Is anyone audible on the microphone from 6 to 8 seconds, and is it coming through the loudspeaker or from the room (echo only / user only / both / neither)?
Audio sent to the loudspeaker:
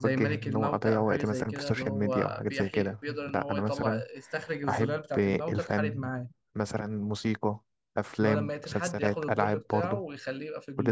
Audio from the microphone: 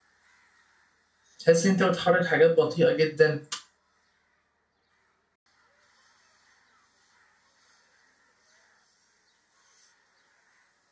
neither